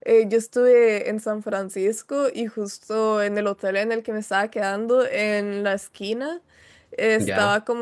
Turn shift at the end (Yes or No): No